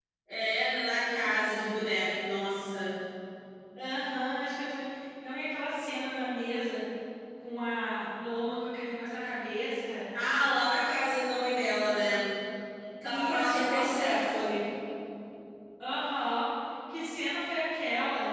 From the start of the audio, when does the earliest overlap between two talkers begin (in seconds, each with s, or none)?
13.1 s